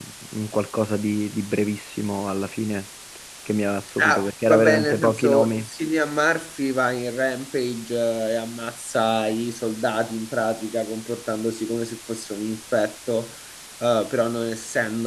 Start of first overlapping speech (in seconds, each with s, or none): 4.0 s